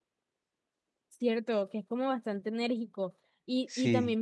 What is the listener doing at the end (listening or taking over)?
listening